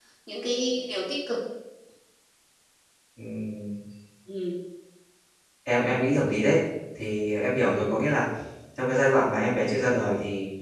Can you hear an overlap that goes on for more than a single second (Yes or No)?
No